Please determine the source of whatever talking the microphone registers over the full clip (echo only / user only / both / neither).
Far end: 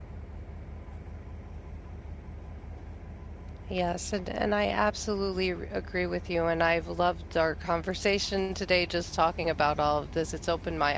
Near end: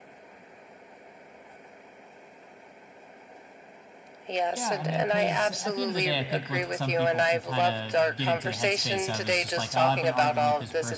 both